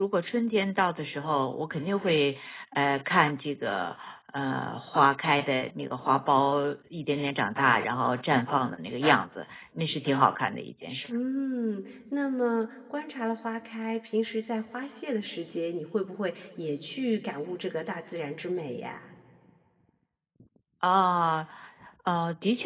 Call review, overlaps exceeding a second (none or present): none